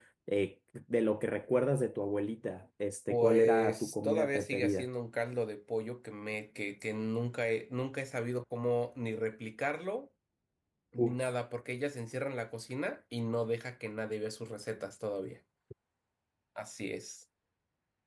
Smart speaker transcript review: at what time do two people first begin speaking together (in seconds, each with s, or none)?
3.1 s